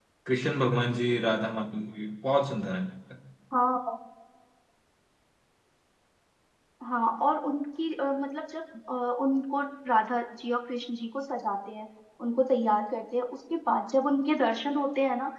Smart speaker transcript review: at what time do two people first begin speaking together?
none

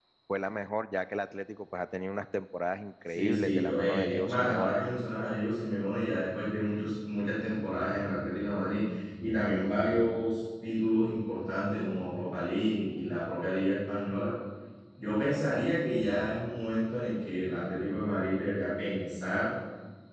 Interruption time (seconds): 3 s

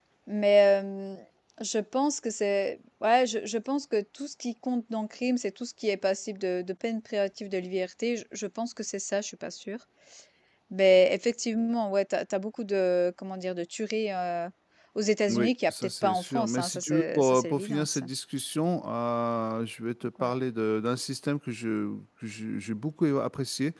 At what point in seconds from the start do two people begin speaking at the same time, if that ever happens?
15 s

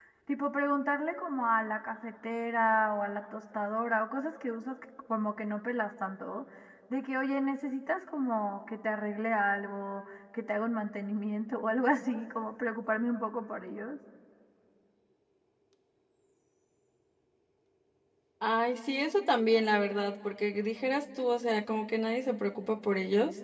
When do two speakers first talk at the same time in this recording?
none

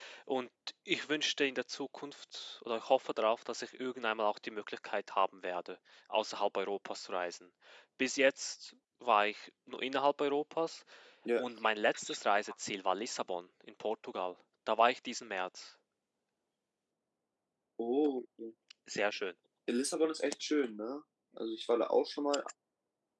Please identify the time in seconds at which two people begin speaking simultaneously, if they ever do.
none

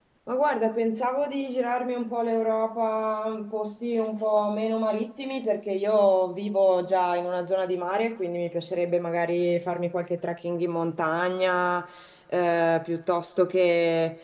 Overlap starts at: none

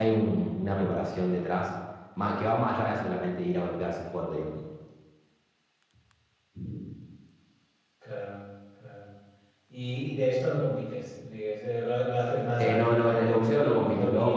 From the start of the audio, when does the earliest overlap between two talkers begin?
13 s

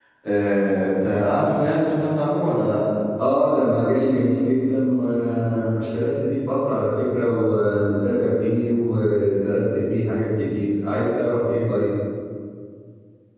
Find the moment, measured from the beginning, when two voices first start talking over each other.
none

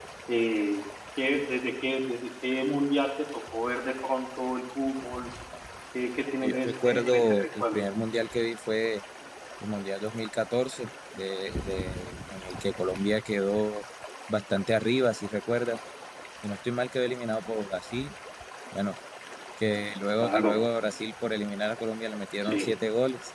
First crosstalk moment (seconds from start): 6 s

